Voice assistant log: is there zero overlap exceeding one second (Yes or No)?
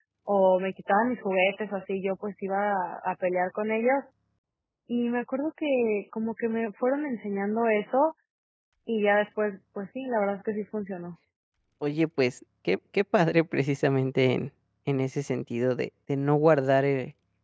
Yes